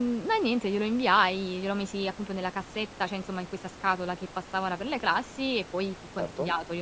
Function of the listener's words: listening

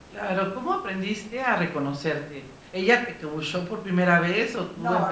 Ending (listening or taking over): taking over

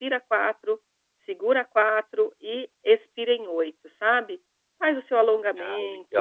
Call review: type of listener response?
listening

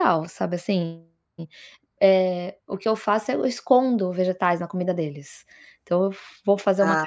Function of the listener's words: listening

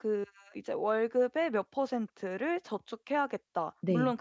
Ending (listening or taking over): listening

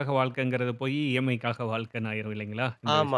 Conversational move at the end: taking over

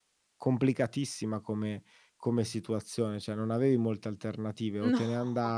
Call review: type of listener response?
listening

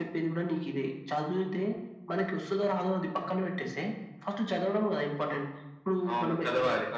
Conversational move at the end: taking over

